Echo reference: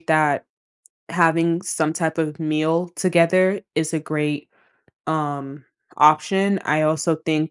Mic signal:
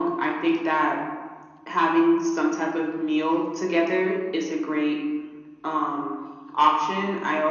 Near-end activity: none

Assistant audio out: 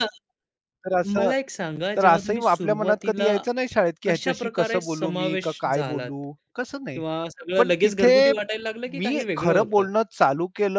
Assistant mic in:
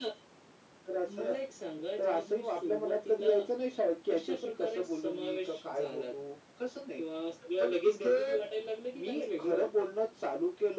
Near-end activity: none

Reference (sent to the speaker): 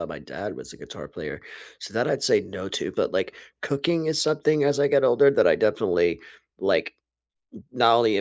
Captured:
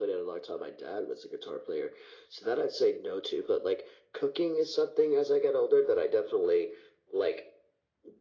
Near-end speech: none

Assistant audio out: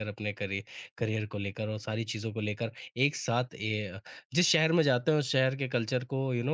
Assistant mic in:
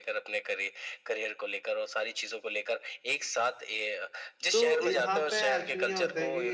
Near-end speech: present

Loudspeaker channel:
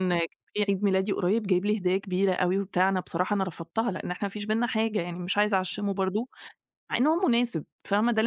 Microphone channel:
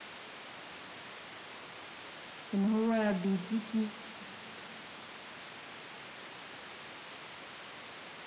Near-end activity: present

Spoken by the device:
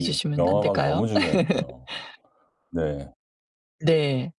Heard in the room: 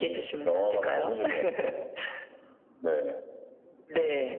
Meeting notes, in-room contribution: none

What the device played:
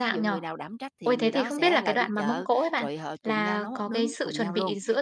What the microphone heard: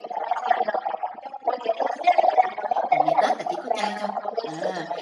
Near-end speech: present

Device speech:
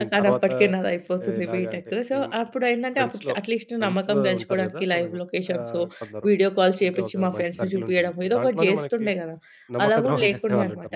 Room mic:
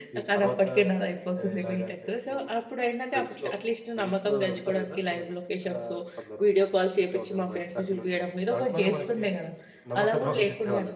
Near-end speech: none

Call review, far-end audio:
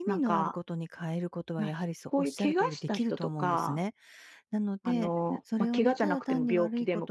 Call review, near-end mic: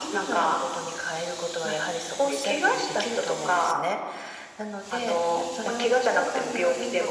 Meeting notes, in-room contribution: none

